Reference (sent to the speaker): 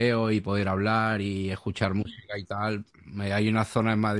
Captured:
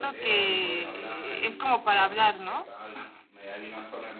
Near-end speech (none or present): present